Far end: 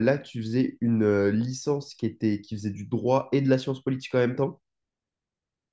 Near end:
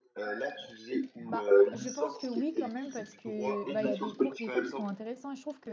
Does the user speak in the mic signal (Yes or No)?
Yes